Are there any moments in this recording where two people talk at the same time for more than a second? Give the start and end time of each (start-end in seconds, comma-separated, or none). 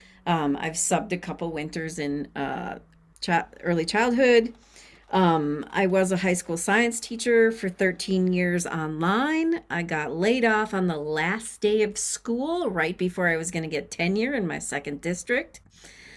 none